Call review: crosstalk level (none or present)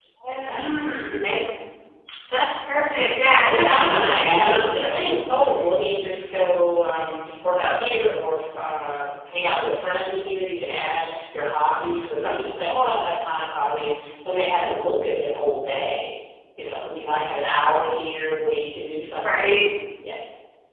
present